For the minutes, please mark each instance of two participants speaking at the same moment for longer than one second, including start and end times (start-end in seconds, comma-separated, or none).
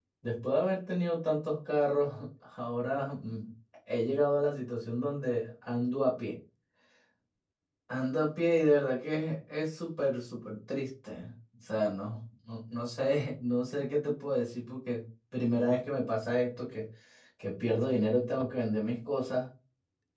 none